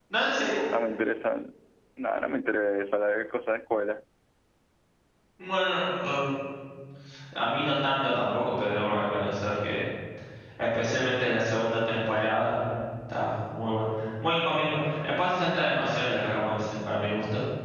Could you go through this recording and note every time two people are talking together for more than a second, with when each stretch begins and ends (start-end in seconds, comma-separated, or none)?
none